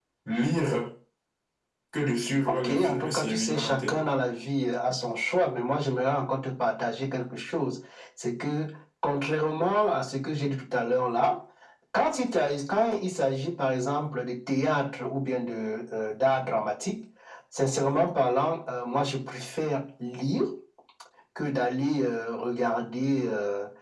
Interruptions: present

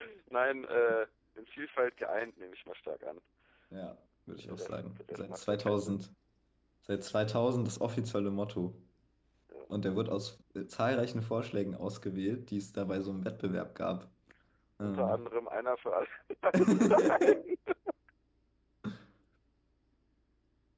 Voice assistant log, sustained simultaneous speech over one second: present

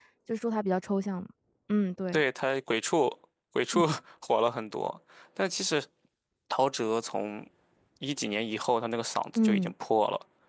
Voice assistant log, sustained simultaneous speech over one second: none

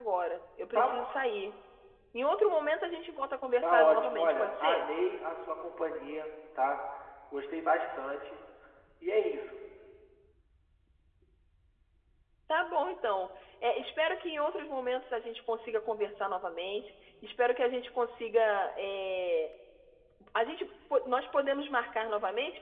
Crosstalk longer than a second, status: present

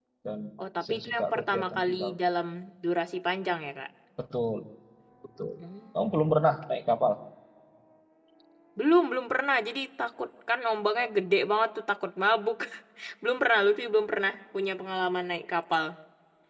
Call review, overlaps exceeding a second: present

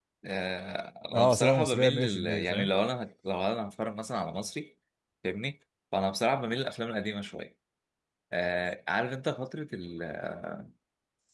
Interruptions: present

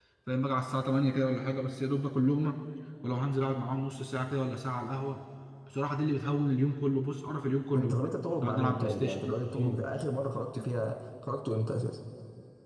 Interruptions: present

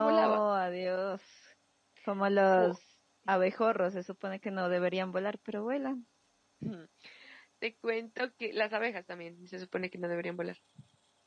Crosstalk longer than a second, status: none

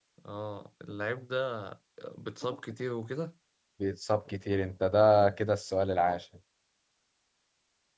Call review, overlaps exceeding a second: none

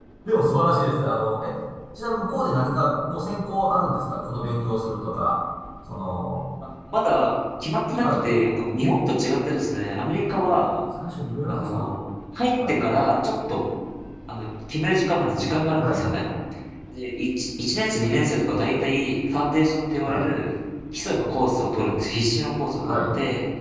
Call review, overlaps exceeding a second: none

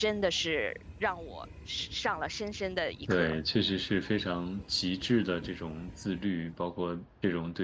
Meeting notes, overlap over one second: none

